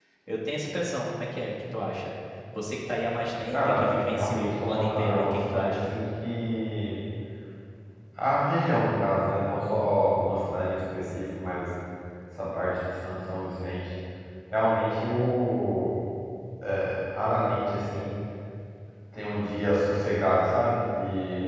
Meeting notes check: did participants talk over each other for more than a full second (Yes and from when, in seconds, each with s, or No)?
Yes, from 3.5 s